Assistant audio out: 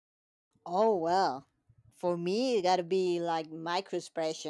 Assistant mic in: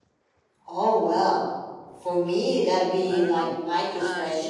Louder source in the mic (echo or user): echo